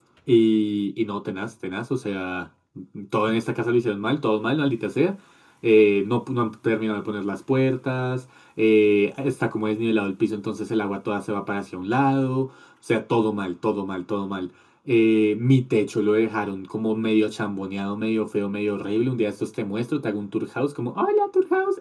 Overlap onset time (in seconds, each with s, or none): none